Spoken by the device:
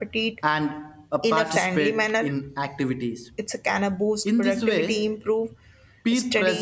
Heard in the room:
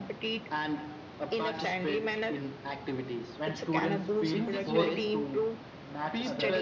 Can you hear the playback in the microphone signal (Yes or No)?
Yes